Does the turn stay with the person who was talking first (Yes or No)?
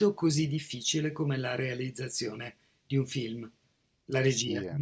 No